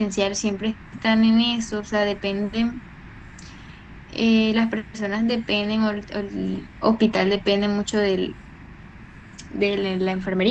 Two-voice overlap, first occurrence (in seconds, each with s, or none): none